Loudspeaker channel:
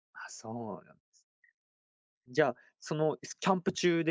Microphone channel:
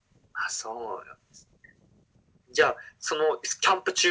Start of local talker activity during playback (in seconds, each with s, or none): none